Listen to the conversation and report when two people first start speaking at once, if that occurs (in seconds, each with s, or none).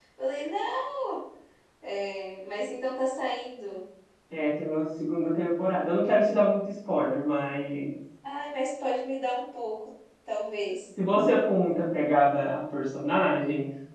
none